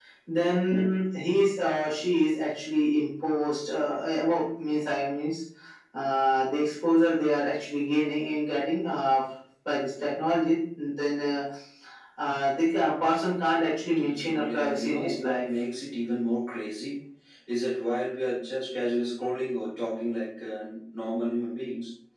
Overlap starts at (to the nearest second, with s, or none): 14 s